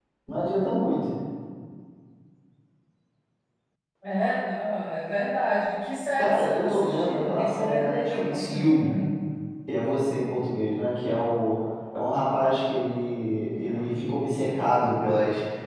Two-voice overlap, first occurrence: 6.2 s

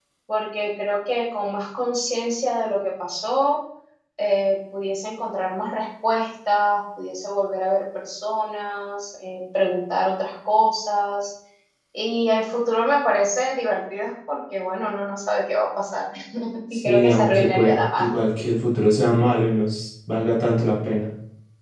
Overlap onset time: 16.9 s

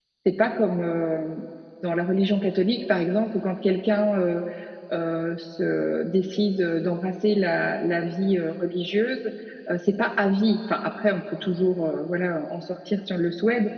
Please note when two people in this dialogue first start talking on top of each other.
none

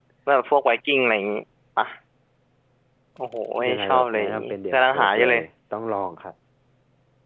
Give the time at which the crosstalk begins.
3.7 s

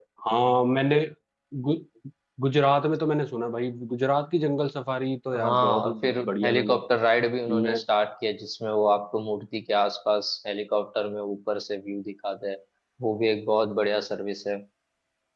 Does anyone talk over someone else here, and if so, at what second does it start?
5.4 s

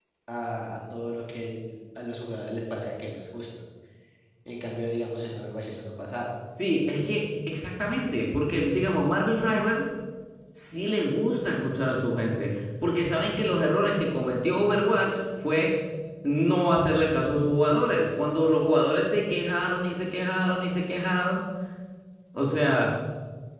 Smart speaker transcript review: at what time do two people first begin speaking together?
none

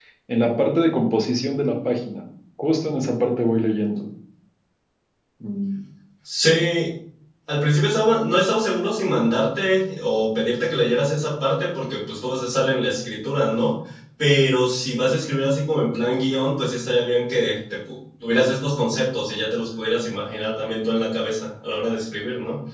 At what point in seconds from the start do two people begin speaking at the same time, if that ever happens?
none

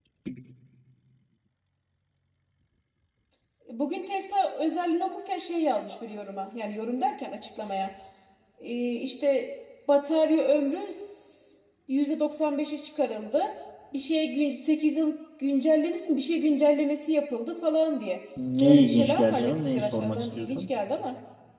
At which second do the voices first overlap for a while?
18.6 s

